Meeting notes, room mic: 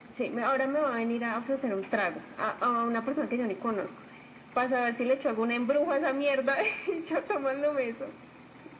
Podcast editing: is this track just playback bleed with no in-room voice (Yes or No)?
Yes